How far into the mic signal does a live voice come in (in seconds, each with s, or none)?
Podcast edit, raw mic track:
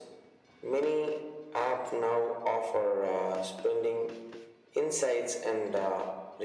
none